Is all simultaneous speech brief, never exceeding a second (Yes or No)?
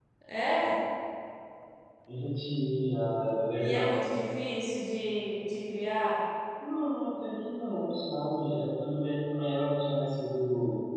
Yes